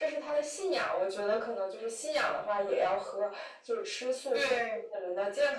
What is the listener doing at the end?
listening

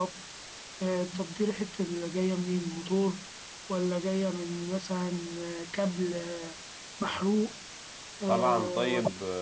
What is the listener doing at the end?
taking over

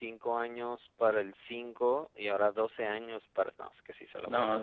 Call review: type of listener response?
taking over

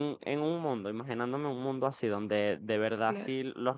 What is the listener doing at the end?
listening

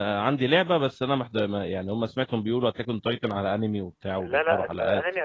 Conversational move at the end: taking over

